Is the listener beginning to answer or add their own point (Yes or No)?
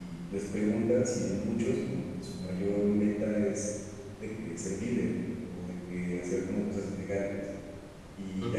No